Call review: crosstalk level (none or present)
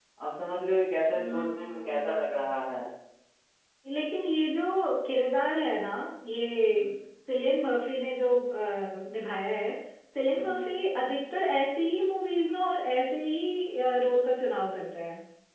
present